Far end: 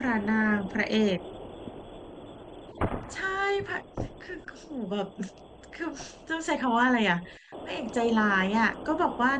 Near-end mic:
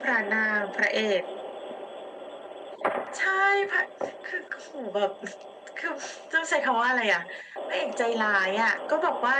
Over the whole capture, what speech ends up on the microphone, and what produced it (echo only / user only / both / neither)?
echo only